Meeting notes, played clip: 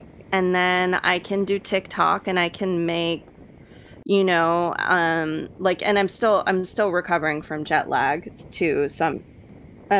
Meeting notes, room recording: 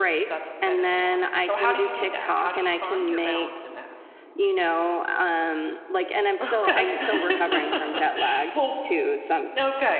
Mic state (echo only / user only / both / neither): both